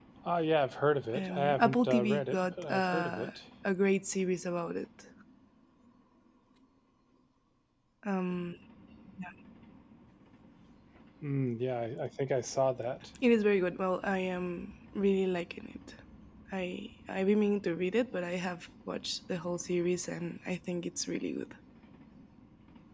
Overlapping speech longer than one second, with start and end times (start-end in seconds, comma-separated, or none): 1.1-3.3